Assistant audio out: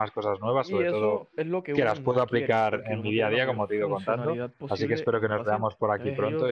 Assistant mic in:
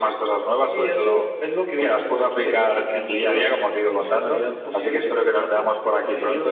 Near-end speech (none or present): none